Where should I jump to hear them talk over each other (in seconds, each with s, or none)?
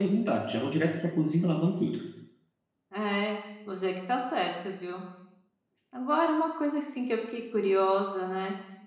none